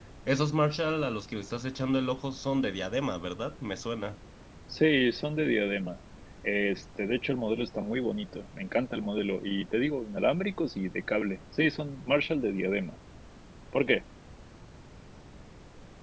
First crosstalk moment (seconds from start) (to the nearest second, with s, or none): none